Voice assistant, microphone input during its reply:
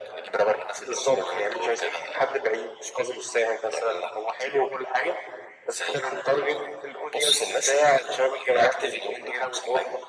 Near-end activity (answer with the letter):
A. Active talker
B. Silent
B